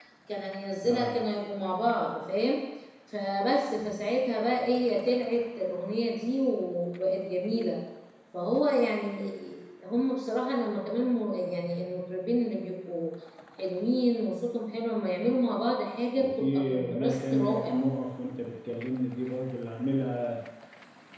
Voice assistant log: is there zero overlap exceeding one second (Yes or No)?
No